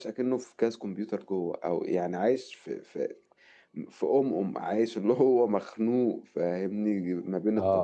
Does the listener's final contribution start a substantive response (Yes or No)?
No